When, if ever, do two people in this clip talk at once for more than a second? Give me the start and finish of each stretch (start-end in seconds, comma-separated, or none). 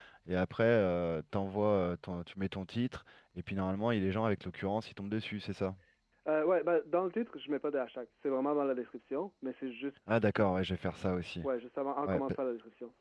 none